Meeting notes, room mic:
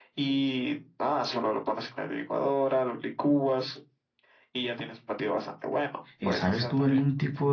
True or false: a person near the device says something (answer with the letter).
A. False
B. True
B